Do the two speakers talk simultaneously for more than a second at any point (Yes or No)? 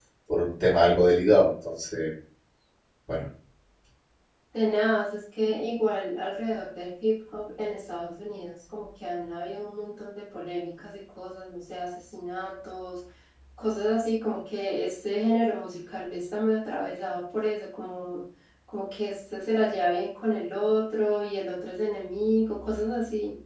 No